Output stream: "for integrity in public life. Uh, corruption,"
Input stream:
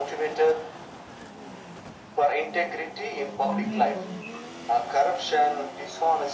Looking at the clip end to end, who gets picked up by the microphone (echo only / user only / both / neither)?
both